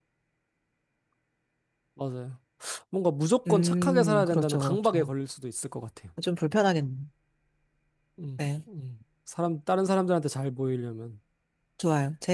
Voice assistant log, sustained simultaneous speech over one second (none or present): present